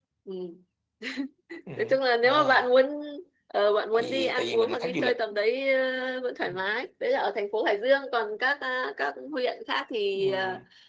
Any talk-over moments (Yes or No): Yes